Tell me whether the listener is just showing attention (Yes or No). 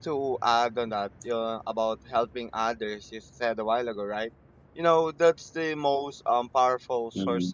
Yes